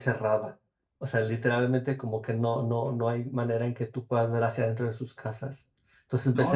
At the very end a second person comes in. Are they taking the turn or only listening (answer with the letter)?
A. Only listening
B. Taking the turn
B